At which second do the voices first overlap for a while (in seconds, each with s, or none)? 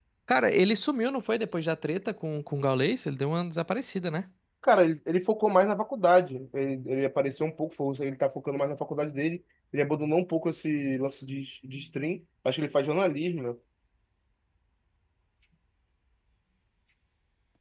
none